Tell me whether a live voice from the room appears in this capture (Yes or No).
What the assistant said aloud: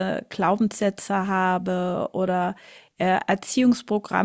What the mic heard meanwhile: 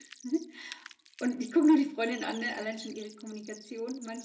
Yes